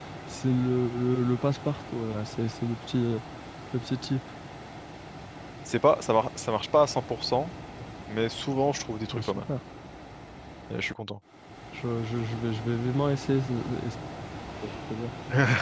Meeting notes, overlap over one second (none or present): none